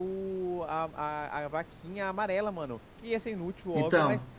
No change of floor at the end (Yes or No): Yes